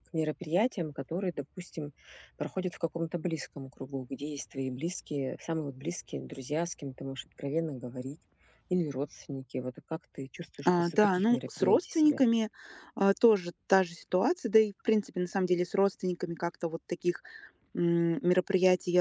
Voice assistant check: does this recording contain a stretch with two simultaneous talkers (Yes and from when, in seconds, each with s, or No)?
Yes, from 10.7 s